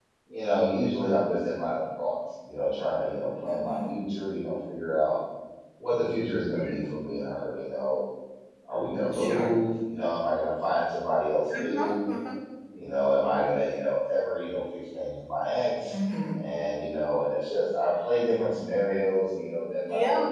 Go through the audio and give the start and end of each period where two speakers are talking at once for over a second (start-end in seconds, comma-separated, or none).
none